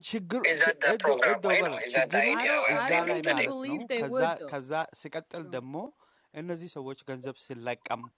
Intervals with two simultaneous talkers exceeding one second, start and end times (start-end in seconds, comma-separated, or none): 0.5-2.2, 2.7-4.5